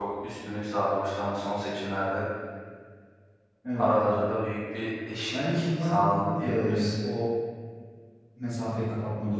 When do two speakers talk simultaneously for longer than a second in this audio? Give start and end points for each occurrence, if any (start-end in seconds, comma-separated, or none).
5.4-6.9